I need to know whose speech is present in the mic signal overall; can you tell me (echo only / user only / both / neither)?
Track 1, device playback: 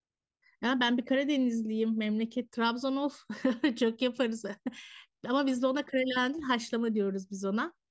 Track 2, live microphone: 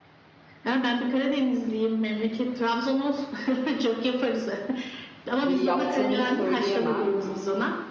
both